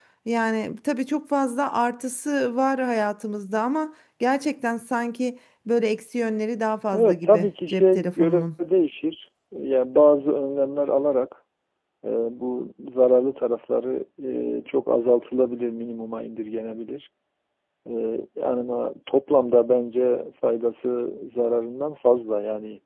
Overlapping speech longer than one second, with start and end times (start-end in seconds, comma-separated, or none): 6.9-8.4